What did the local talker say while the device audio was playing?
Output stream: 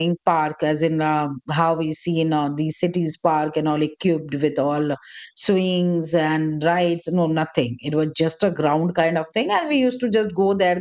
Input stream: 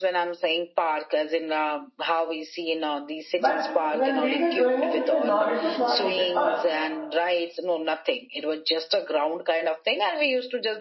but when we were growing up it was not it was not like that or

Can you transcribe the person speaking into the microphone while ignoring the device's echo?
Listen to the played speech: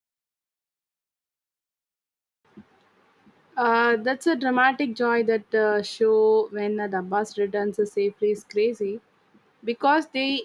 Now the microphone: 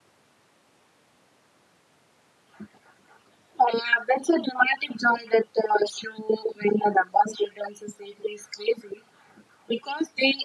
none

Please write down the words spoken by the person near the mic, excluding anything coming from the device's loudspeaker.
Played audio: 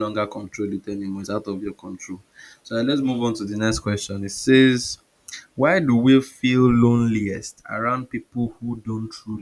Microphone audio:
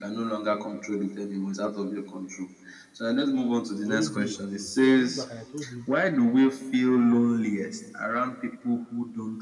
They always know your clothes. So I went back and I told him.

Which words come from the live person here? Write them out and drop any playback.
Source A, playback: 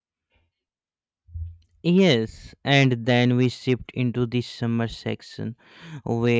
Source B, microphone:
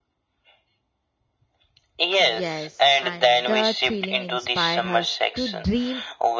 Yes, and that feeling inspired us to dream

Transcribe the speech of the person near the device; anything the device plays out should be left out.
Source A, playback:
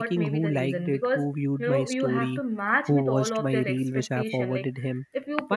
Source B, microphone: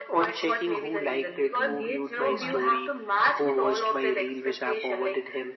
engage too much

